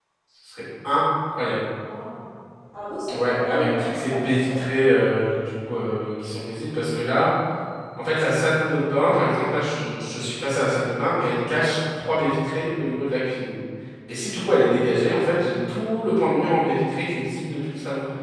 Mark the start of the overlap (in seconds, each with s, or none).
3.1 s